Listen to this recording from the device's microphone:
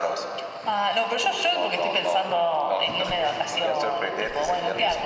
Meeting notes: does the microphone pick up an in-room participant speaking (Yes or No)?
Yes